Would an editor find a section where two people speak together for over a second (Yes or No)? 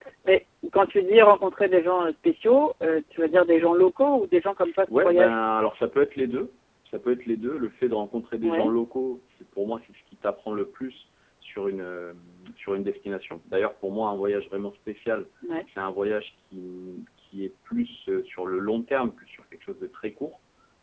No